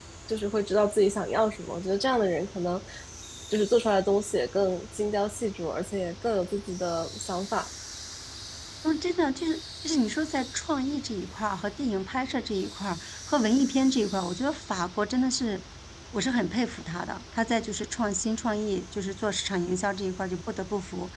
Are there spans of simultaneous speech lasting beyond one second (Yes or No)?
No